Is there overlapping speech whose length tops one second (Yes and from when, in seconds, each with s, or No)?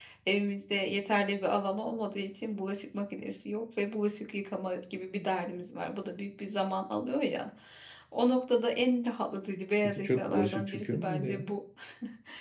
Yes, from 10.0 s